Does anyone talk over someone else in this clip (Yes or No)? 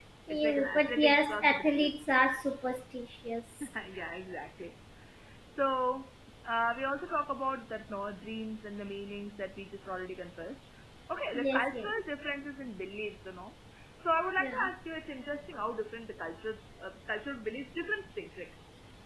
Yes